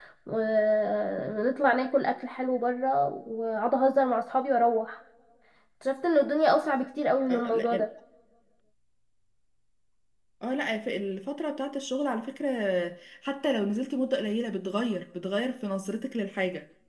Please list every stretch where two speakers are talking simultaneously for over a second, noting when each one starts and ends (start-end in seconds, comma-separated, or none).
none